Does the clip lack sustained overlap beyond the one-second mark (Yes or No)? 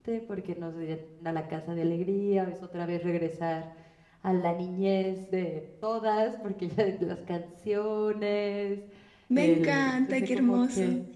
No